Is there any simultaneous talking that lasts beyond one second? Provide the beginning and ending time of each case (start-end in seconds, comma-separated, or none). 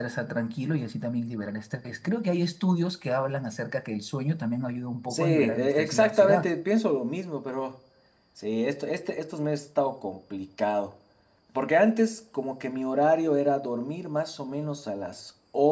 5.1-6.5